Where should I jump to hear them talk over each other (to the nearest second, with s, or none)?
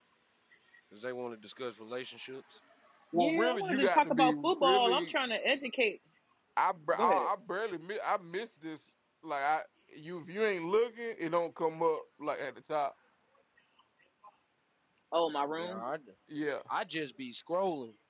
3 s